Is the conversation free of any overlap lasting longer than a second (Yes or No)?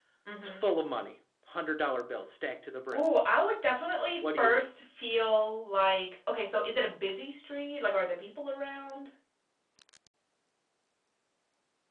Yes